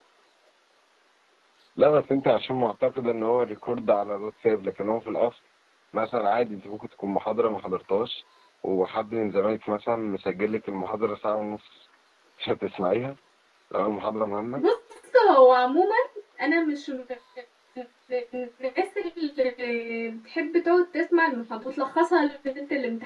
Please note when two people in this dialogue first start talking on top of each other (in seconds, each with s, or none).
none